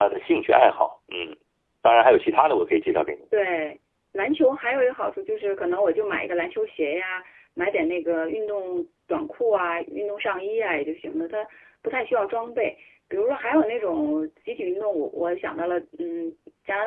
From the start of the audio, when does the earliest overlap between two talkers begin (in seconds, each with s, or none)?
none